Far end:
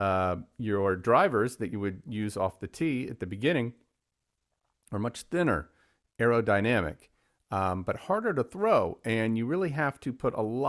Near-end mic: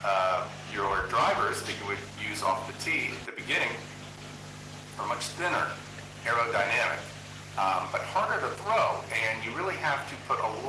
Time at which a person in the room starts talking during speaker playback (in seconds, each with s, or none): none